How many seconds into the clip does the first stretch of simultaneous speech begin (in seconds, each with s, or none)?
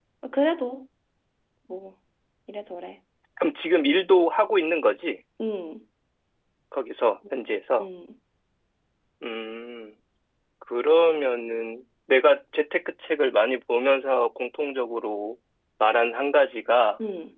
none